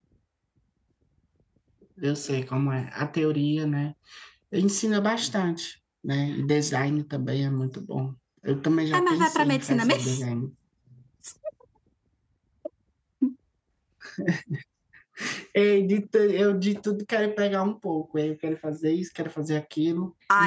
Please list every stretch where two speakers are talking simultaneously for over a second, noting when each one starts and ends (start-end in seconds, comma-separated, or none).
8.9-10.2